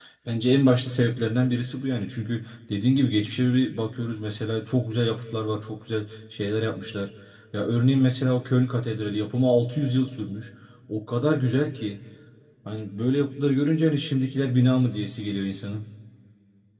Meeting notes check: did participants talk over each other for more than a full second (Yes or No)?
No